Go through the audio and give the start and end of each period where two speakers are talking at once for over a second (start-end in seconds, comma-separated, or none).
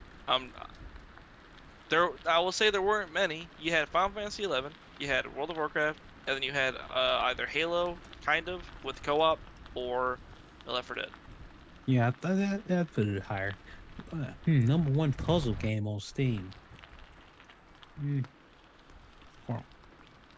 none